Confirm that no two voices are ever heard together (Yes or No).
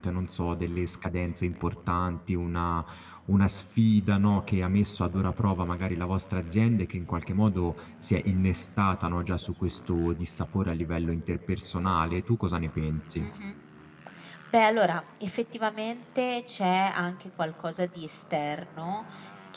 Yes